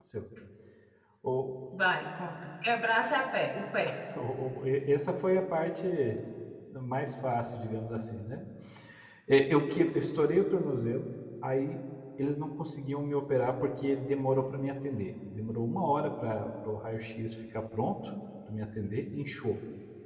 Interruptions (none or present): none